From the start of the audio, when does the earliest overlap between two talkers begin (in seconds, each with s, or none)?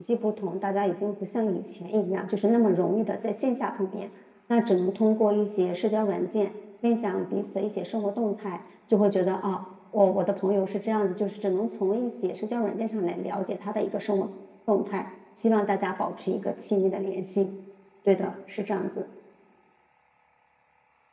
none